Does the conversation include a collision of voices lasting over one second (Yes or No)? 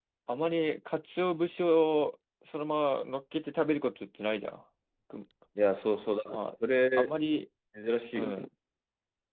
No